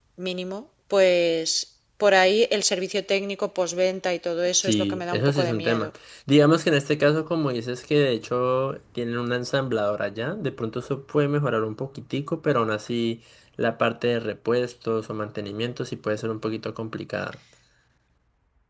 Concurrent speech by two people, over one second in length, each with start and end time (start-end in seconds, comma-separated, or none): 4.5-5.9